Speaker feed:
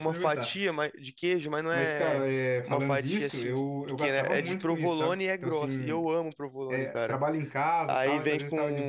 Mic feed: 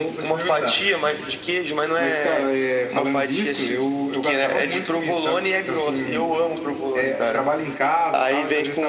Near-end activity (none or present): none